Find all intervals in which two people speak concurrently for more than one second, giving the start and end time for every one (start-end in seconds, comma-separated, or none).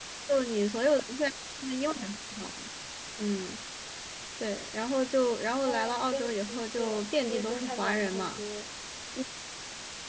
5.7-8.4